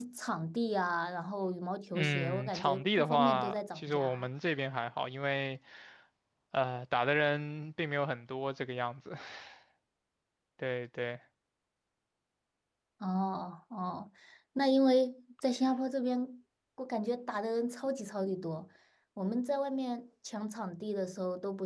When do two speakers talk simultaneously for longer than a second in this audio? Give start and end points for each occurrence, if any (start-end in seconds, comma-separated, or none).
1.9-4.3